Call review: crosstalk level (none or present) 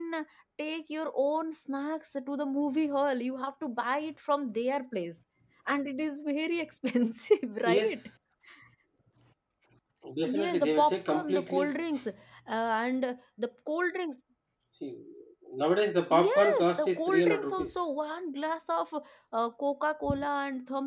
present